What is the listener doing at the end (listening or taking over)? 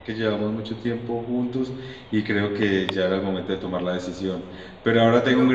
listening